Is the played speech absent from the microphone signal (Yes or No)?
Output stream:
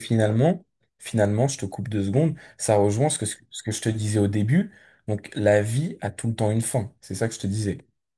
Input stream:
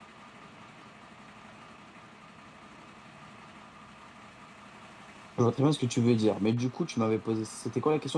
Yes